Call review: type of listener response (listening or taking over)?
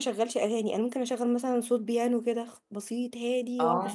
listening